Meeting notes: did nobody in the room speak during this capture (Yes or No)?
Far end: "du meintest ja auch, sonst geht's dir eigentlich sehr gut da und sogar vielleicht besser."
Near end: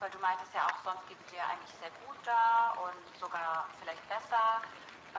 Yes